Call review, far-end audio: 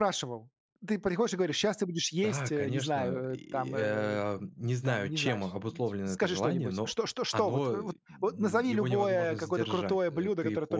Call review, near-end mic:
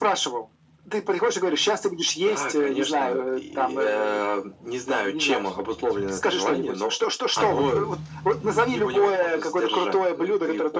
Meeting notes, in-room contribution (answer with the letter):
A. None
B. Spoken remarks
A